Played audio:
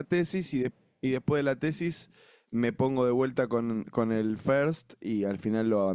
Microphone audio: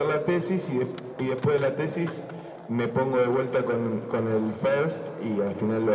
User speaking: No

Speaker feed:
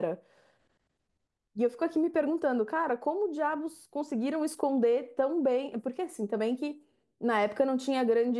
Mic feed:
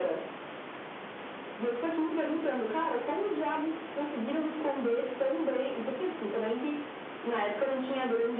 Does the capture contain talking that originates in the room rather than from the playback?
No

